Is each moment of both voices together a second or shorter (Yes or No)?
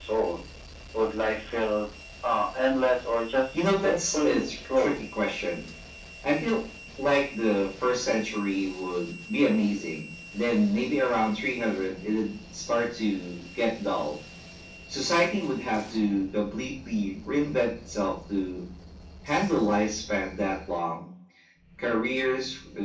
No